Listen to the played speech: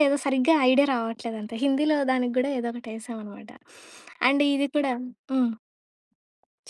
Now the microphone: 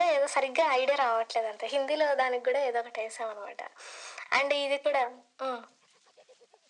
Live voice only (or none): none